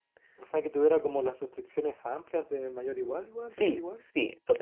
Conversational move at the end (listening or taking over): taking over